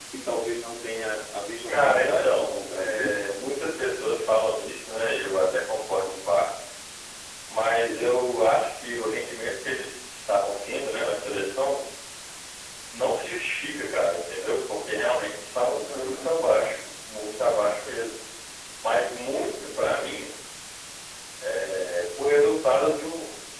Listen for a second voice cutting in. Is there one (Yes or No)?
Yes